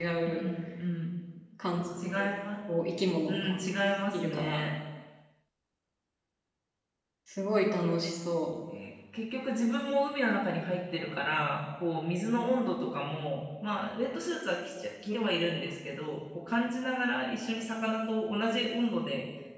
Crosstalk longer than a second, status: none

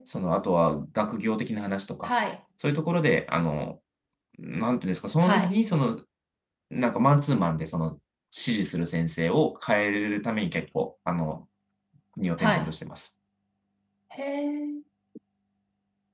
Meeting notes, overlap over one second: none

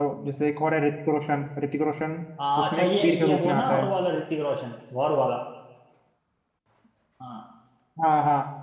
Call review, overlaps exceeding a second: present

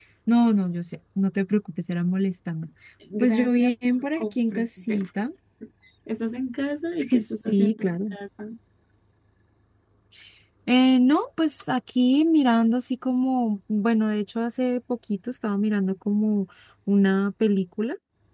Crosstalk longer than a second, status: present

